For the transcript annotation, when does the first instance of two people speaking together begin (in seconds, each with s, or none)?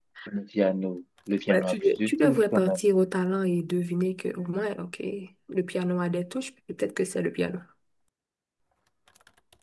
1.5 s